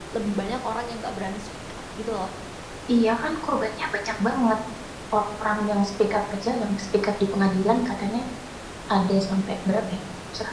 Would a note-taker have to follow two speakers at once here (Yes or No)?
No